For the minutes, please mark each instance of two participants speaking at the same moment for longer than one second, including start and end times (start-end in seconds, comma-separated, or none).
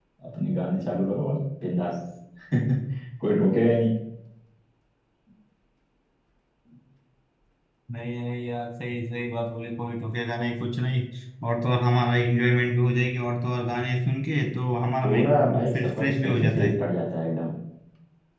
15.0-16.7